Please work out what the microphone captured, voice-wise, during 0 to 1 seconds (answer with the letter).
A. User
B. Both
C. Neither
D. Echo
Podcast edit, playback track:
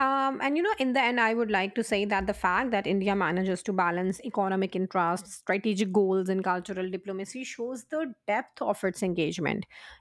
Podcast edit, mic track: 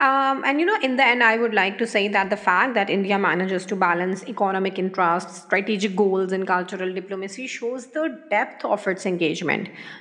D